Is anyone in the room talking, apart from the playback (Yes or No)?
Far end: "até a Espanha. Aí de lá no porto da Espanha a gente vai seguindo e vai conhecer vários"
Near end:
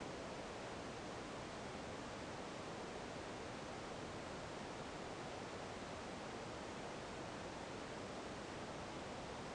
No